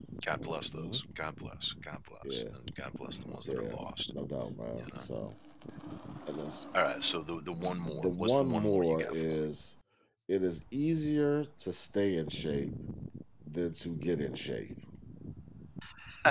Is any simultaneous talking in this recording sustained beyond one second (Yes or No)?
Yes